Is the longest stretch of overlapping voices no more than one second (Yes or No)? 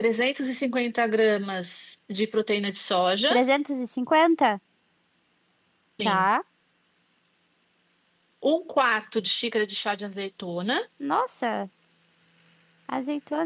Yes